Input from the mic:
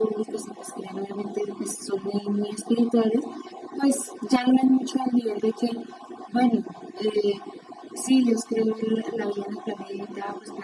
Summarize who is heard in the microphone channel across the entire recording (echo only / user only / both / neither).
echo only